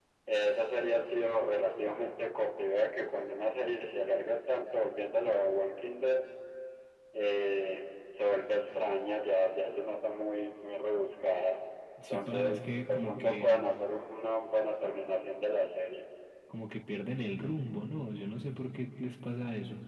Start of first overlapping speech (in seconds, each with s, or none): 12.1 s